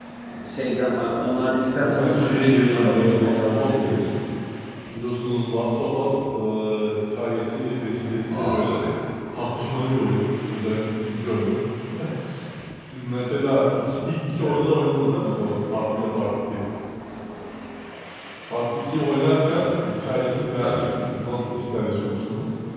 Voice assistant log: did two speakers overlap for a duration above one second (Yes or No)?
Yes